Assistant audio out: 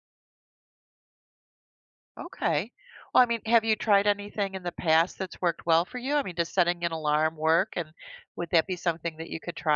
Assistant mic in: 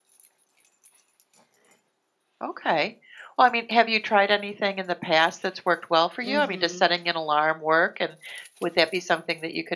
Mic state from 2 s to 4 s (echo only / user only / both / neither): echo only